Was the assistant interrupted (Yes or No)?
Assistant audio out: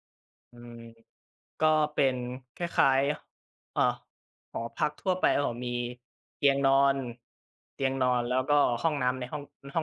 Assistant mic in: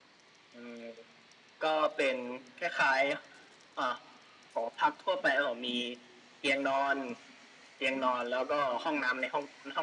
No